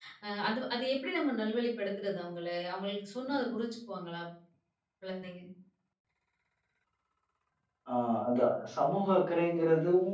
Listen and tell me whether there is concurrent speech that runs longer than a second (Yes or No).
No